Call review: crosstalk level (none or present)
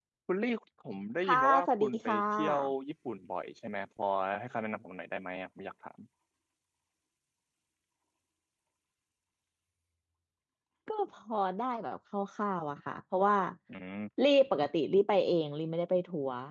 present